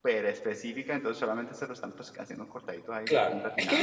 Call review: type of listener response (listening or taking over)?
taking over